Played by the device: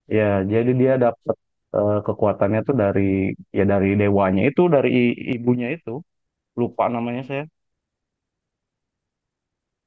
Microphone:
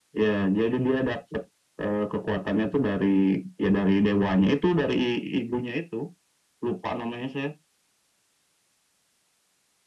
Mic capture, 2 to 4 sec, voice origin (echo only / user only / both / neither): echo only